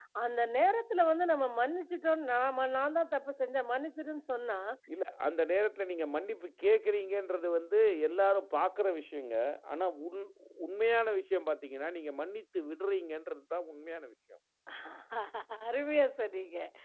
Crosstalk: none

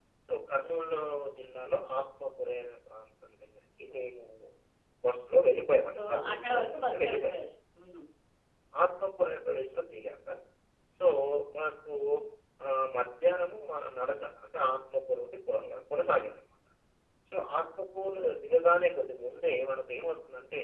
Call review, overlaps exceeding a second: present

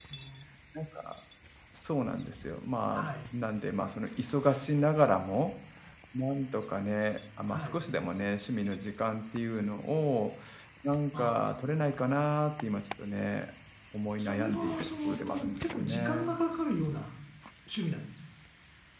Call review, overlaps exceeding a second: present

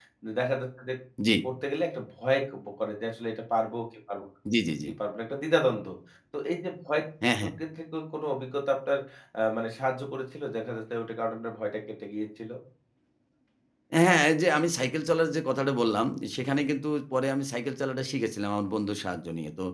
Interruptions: none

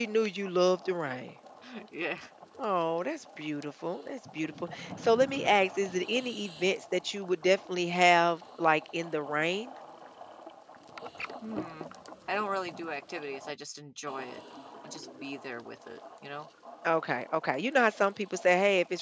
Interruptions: none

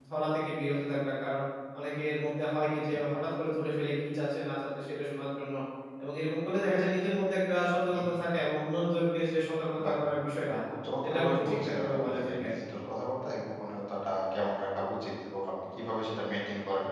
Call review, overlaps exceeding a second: present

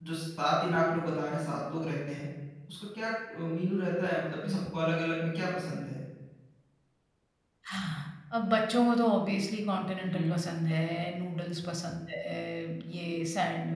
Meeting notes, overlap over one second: none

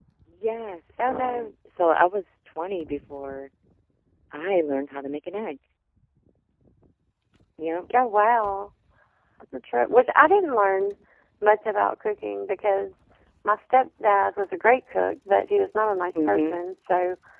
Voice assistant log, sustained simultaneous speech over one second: none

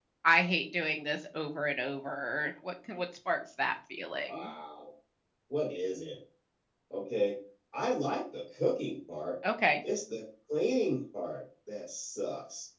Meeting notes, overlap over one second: none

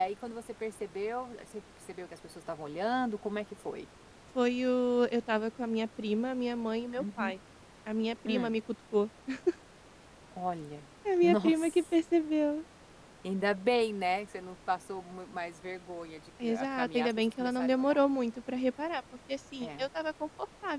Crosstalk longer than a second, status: present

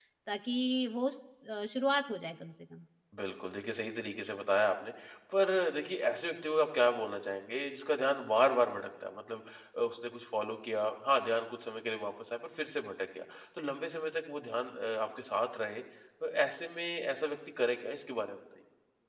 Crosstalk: none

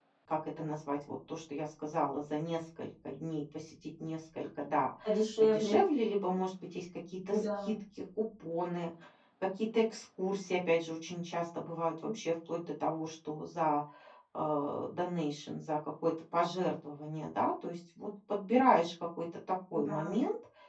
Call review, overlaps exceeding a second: none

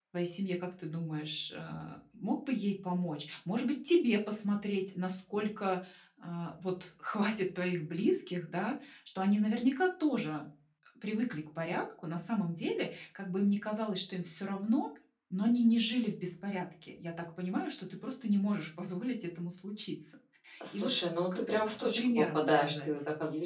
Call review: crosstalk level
present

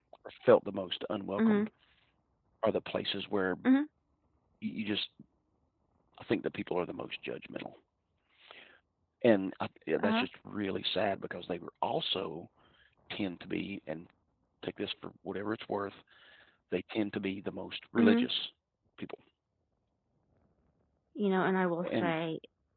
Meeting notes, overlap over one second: none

